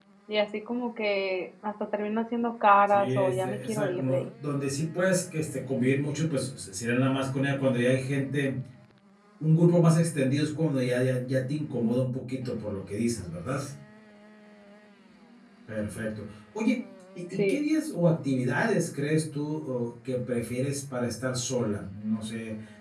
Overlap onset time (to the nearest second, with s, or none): 3 s